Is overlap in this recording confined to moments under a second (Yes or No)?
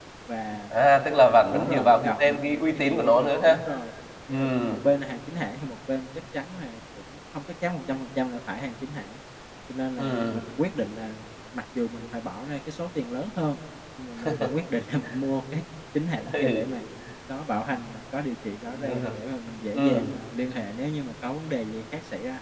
No